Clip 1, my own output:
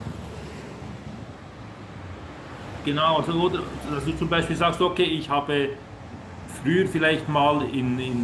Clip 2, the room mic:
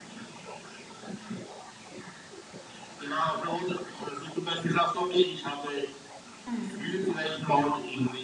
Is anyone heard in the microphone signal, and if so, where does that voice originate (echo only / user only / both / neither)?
both